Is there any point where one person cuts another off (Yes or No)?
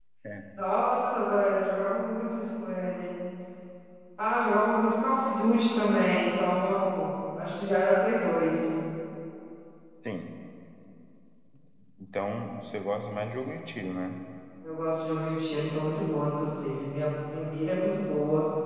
No